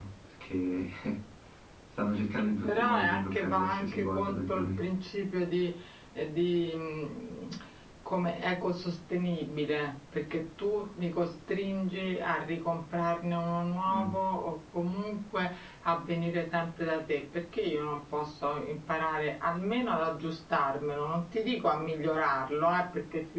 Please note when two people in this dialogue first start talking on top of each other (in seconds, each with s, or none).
2.4 s